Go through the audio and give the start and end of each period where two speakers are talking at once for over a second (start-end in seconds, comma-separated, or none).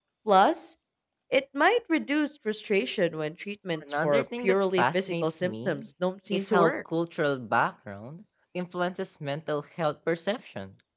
4.0-5.8